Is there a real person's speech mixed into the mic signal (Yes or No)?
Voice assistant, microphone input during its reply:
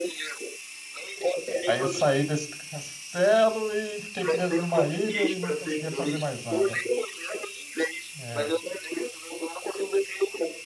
Yes